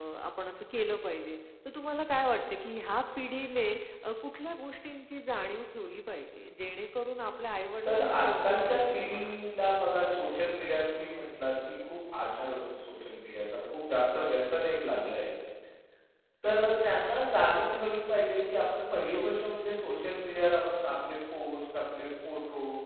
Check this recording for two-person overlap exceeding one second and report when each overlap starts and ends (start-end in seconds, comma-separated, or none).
7.8-9.4